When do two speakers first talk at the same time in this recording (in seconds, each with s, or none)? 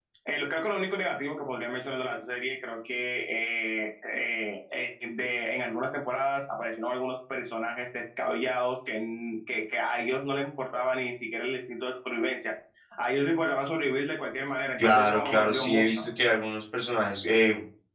14.8 s